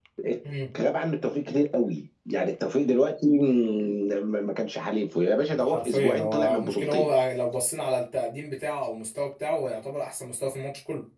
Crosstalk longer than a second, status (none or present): present